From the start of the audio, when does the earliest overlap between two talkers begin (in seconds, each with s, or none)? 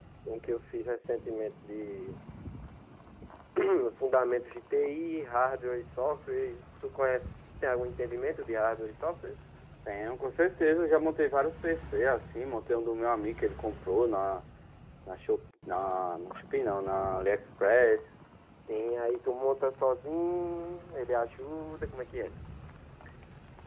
none